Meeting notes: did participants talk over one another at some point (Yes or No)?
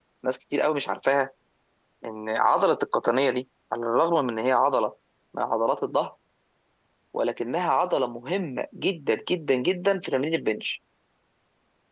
No